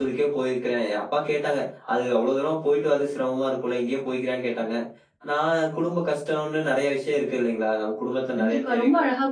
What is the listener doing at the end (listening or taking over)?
taking over